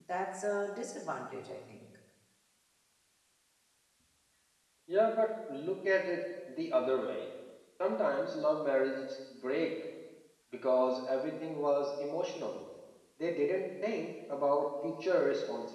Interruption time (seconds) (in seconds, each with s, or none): none